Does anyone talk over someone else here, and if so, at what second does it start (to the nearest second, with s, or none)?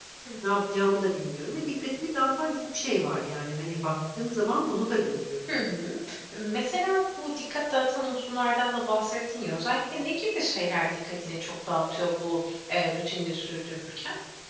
none